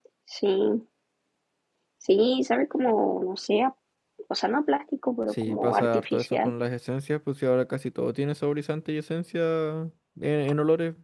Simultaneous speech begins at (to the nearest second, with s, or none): 5 s